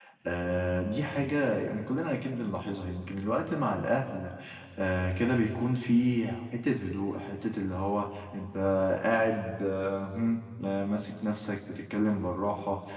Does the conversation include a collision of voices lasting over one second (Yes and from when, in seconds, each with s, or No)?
No